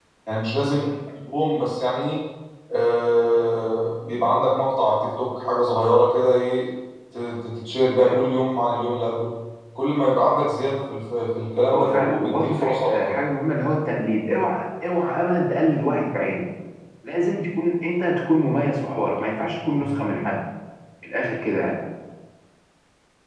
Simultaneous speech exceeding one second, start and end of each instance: 11.7-13.1

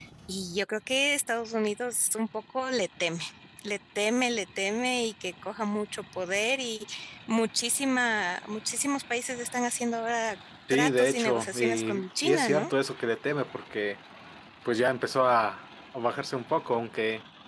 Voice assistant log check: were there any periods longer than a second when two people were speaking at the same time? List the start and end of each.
10.7-12.7

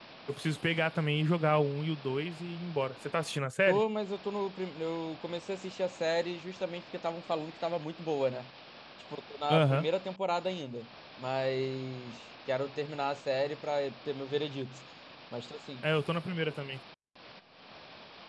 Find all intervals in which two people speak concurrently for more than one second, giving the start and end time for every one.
none

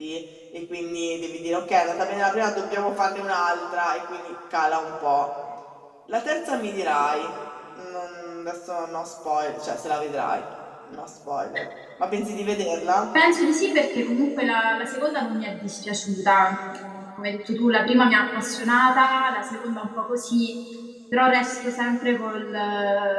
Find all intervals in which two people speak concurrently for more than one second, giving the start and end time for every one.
none

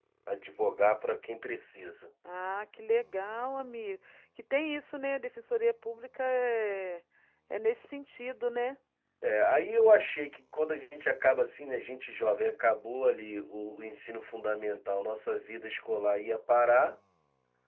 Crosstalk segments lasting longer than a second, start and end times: none

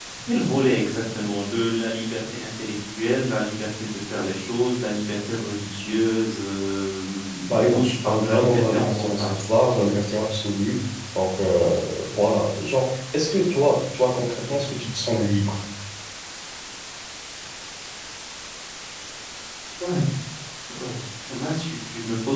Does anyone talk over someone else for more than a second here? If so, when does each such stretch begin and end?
7.5-9.4

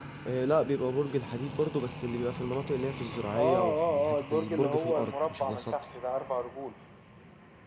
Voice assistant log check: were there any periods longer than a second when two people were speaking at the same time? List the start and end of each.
3.4-5.7

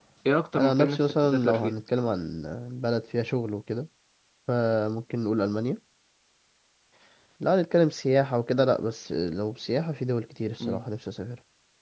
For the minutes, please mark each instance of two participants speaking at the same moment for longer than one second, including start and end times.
0.6-1.8

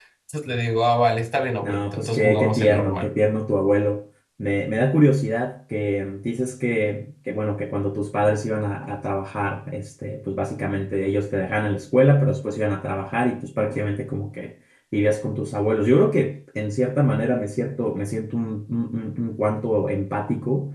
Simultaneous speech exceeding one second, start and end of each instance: 1.6-3.1

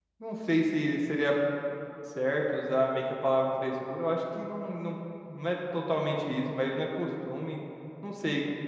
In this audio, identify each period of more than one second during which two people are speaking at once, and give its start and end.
none

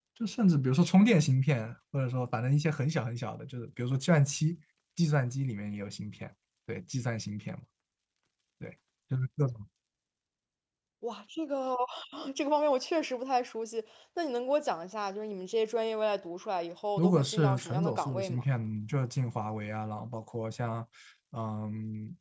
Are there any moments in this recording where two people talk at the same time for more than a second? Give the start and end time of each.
17.0-18.4

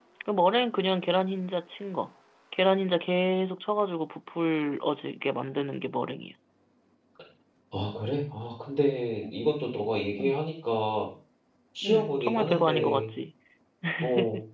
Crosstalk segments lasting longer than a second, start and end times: 11.8-13.1

